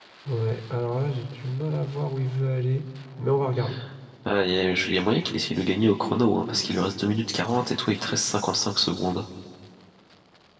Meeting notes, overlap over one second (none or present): none